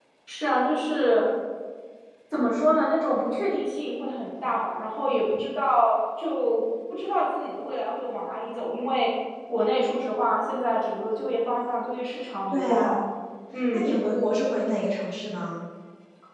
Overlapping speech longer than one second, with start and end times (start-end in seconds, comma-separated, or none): none